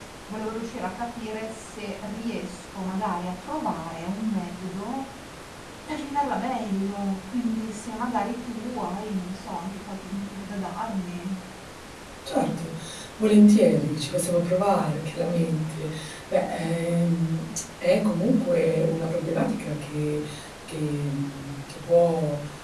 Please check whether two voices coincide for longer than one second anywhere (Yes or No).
No